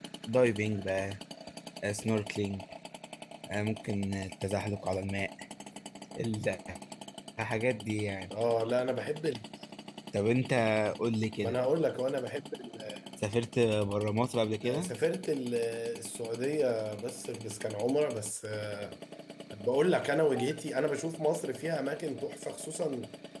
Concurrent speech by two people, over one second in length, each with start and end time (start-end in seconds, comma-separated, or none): none